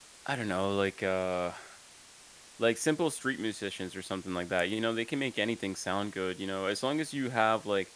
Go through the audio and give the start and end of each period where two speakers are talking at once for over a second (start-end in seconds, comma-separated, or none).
none